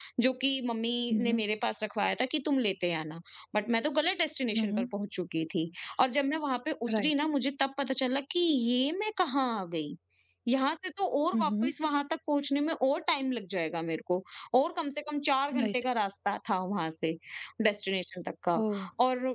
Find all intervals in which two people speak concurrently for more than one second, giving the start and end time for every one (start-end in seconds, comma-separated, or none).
none